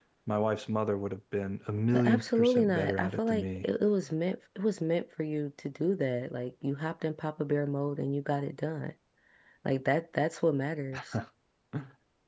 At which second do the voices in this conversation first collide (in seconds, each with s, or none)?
1.9 s